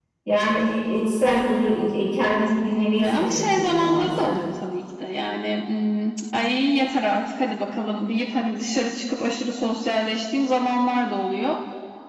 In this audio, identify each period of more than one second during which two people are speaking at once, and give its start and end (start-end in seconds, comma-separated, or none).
2.4-4.4